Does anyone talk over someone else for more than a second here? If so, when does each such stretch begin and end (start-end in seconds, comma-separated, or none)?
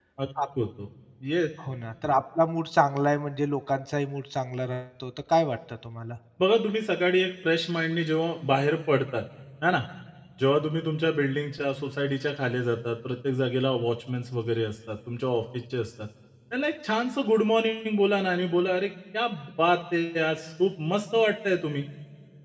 none